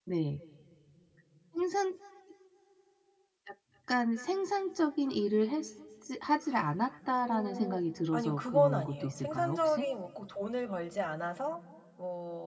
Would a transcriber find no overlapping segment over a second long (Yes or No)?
No